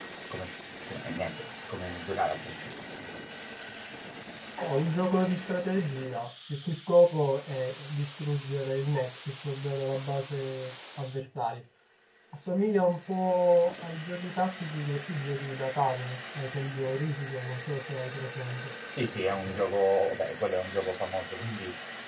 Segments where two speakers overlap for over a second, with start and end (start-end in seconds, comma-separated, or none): none